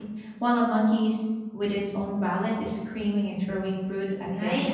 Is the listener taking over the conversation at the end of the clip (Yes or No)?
Yes